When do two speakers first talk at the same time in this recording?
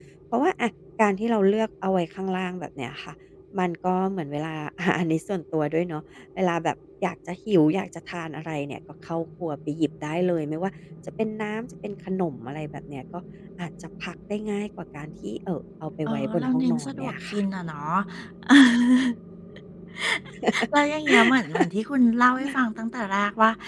16.1 s

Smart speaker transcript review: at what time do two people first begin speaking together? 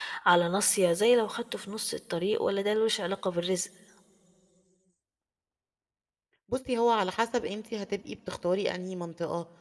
none

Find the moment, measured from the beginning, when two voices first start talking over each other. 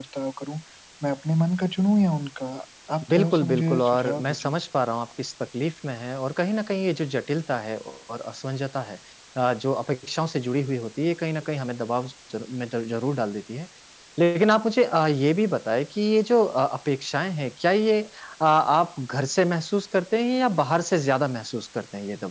3.1 s

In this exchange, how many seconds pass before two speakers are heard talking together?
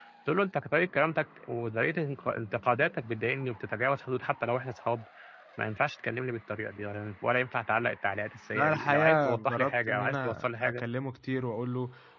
8.5 s

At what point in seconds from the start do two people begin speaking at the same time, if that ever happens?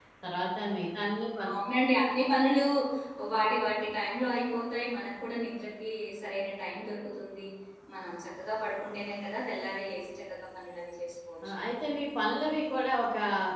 none

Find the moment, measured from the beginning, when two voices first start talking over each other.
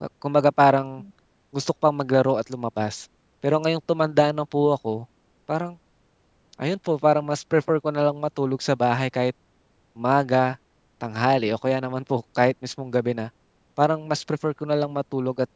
none

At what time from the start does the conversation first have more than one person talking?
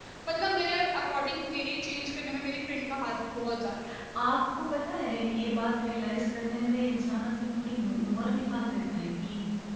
none

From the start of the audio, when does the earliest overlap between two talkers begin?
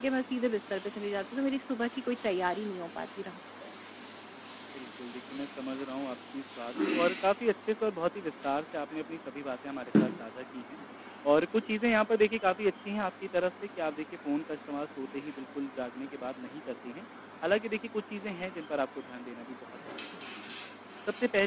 none

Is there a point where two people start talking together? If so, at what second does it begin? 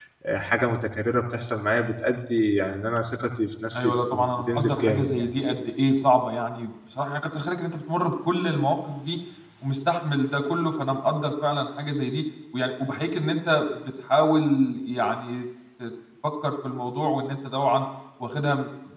3.7 s

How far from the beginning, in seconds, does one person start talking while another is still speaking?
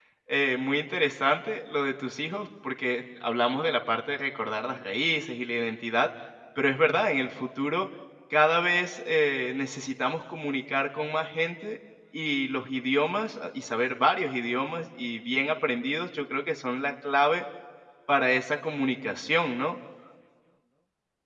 none

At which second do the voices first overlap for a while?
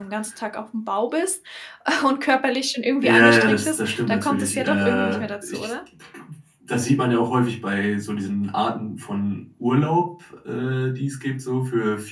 3.0 s

